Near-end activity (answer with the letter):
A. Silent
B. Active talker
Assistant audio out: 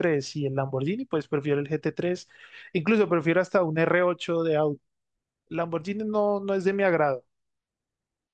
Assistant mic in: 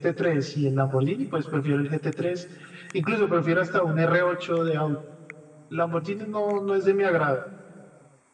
A